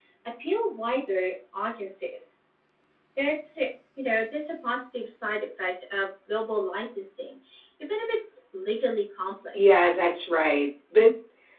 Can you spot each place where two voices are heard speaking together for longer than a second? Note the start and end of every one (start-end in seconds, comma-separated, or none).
none